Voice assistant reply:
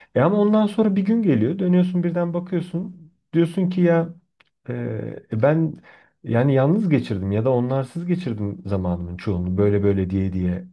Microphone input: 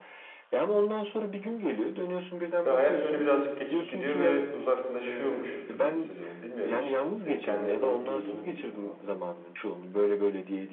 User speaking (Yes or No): Yes